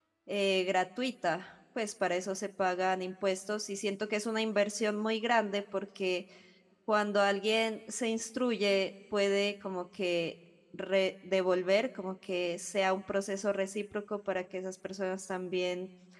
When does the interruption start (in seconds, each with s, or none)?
none